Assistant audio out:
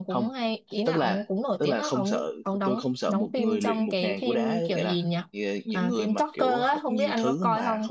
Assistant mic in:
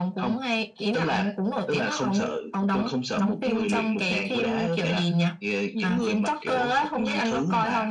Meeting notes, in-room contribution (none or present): none